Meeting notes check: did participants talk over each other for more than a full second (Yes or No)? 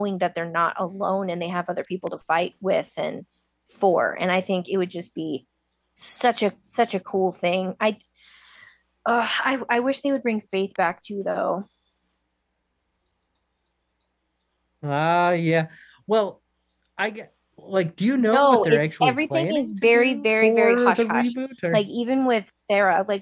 Yes